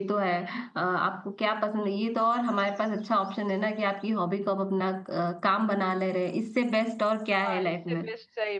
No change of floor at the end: No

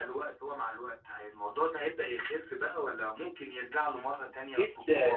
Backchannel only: No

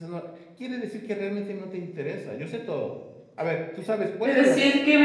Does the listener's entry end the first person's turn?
Yes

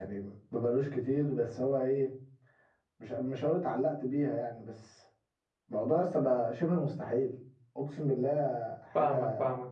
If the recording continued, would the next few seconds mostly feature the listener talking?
Yes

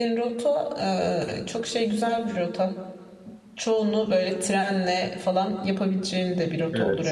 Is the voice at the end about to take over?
Yes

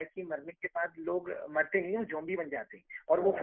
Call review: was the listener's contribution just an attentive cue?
Yes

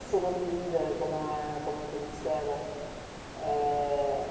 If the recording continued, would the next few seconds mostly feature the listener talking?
No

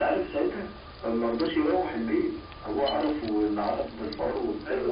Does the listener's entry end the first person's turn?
Yes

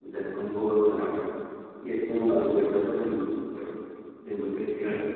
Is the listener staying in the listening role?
No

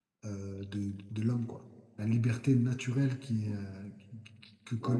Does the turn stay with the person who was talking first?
No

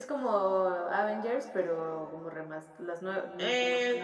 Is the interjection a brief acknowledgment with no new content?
No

